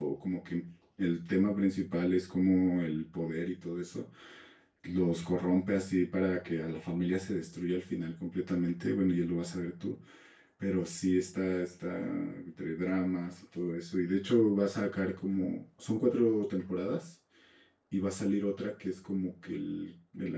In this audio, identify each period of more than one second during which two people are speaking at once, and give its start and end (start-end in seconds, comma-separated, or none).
none